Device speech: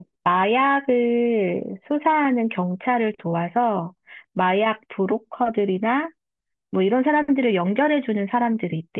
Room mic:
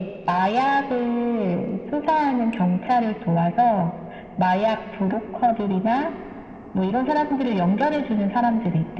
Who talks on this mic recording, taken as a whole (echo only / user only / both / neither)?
echo only